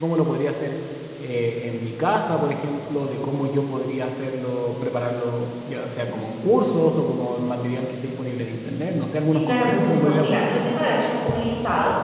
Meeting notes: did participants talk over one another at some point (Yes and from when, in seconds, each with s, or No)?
Yes, from 9.3 s